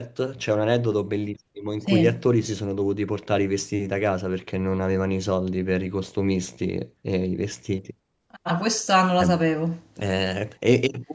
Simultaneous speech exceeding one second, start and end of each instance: none

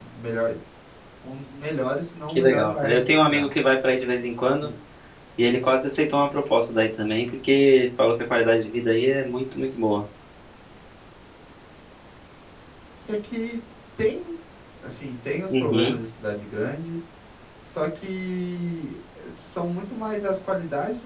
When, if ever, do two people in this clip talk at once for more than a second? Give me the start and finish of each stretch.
2.3-3.5

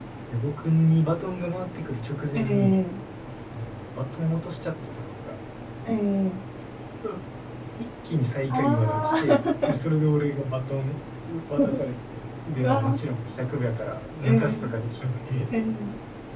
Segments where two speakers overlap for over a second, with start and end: 8.5-9.8

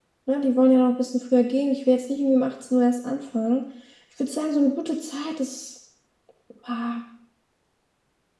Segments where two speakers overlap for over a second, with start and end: none

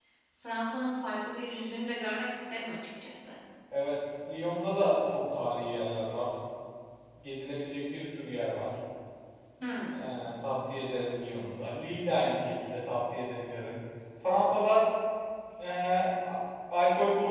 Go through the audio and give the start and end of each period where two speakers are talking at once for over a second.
none

